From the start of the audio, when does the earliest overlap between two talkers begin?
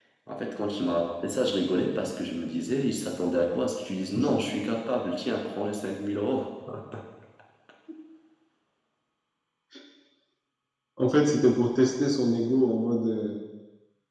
none

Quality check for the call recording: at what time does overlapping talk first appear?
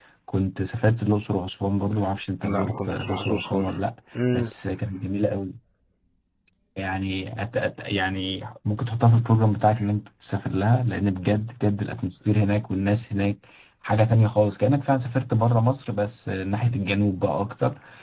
2.4 s

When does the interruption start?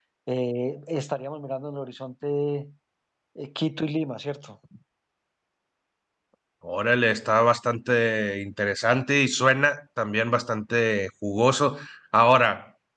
none

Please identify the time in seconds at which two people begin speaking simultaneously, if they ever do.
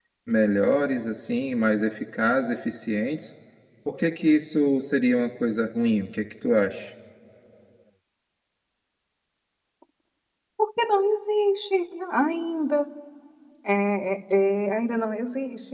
none

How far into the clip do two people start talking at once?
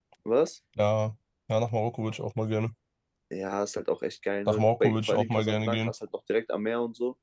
4.5 s

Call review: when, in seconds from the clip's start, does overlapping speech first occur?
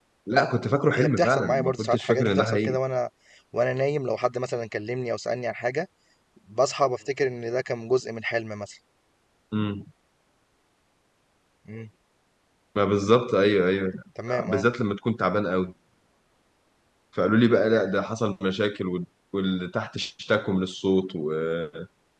0.9 s

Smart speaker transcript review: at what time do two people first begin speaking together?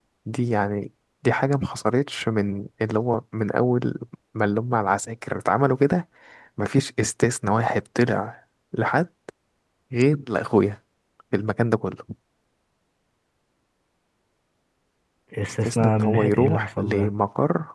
15.7 s

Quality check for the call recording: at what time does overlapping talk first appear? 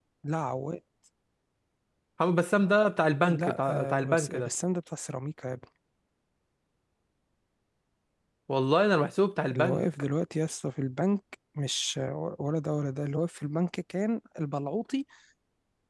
3.3 s

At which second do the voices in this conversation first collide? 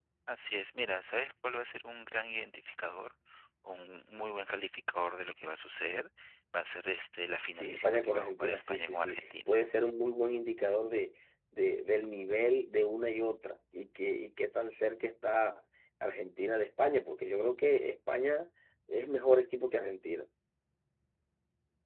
7.5 s

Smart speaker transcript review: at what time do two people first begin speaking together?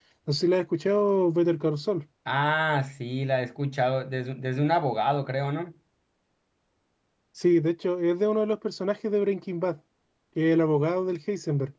none

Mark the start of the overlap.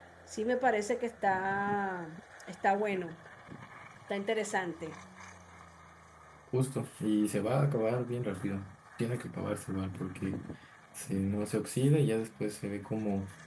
none

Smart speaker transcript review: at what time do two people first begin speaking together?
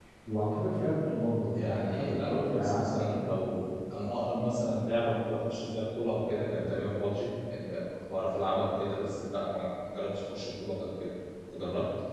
1.4 s

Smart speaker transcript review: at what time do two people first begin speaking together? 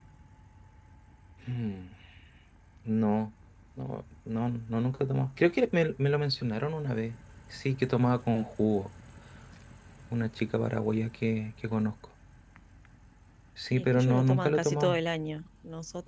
13.7 s

